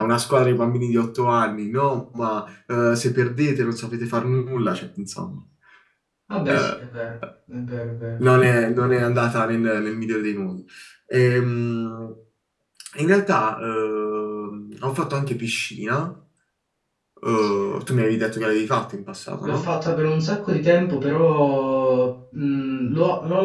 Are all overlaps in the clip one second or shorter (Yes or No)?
Yes